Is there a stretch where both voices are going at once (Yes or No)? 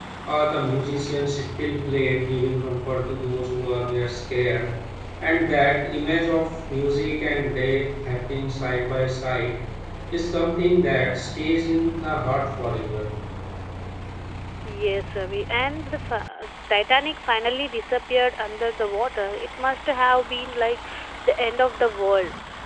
No